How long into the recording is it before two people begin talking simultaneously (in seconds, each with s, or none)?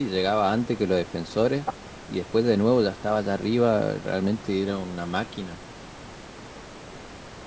none